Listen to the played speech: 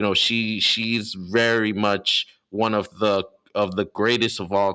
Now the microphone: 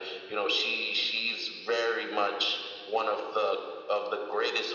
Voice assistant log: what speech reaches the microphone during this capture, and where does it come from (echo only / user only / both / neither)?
echo only